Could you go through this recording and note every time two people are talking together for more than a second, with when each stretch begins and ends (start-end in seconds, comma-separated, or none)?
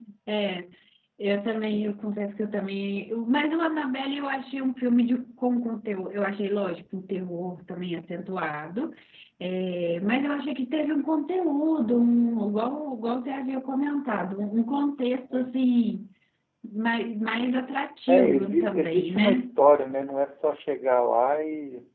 18.1-19.5